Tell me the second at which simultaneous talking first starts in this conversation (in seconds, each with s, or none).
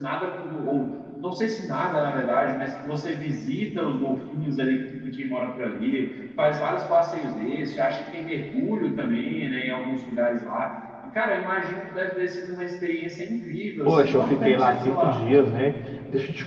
13.8 s